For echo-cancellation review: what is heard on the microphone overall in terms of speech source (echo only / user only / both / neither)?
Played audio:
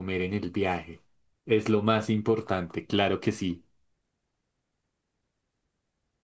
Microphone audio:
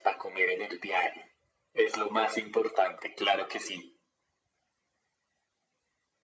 echo only